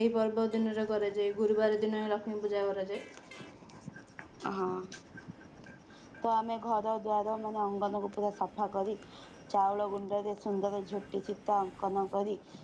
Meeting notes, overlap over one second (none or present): none